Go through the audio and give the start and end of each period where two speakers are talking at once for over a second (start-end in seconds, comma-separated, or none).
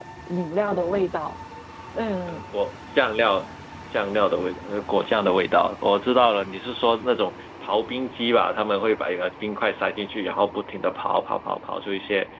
none